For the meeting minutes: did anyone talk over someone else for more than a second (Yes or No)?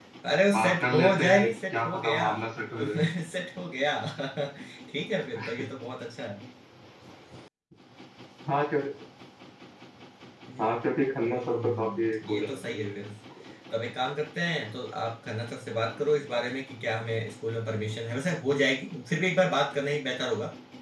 Yes